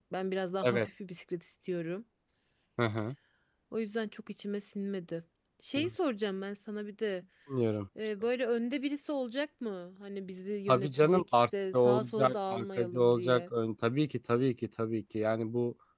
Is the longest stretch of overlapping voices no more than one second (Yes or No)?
No